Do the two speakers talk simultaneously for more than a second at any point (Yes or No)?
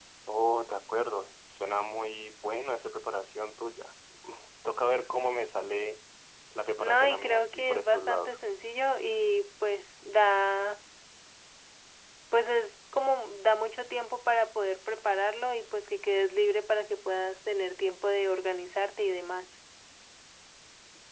Yes